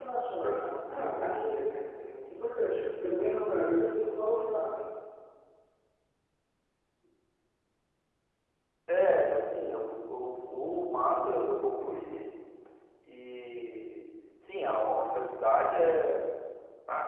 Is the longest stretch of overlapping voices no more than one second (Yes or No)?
Yes